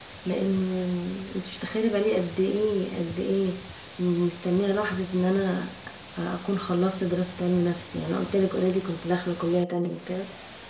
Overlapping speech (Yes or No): No